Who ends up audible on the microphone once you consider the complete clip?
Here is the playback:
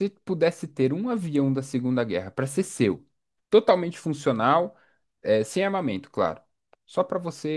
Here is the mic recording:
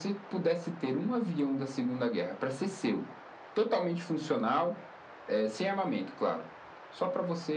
echo only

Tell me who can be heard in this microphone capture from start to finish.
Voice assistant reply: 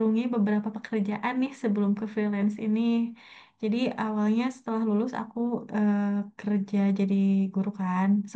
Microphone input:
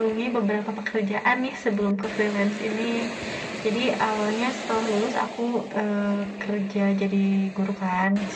echo only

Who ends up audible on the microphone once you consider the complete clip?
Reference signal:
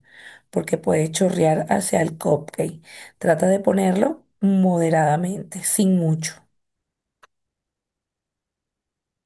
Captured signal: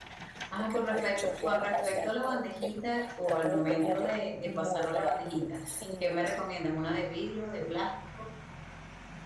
both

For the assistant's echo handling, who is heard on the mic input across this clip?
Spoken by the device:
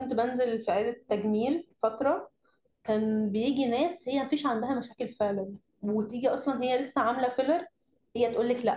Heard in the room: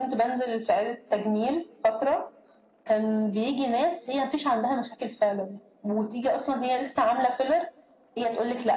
echo only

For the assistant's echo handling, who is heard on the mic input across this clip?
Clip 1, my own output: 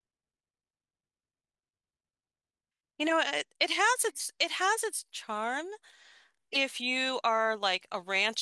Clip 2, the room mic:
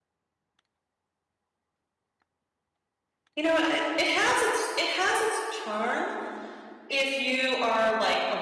echo only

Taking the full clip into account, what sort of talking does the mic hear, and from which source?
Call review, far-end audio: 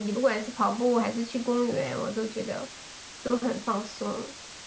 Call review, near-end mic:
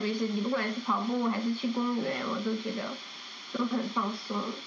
echo only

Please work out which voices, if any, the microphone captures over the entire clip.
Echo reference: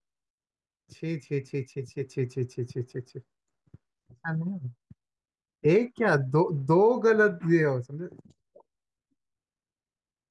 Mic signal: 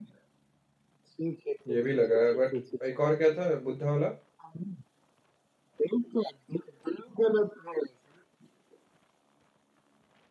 both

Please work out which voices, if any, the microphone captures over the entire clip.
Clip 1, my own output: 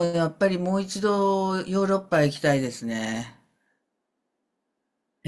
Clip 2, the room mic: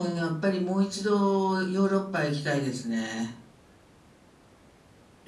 echo only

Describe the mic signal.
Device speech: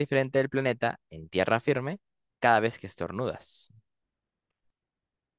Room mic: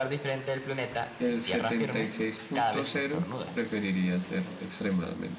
both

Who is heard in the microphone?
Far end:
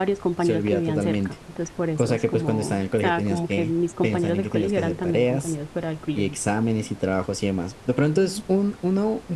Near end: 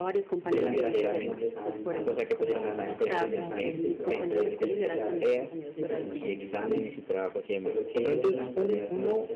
both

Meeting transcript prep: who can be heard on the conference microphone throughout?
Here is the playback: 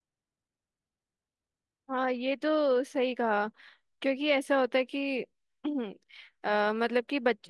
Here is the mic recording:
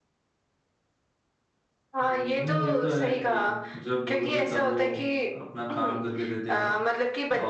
both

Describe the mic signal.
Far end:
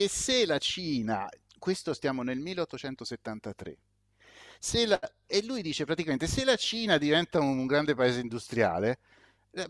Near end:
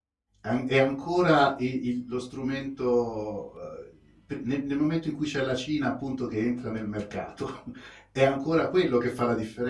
user only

